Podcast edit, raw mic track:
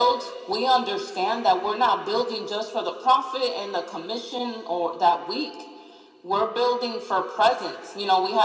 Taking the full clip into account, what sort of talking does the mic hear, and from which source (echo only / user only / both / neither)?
echo only